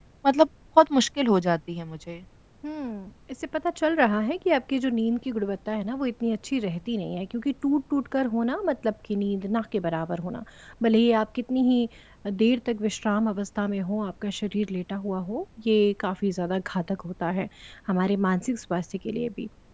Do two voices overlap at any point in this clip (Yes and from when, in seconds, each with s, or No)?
No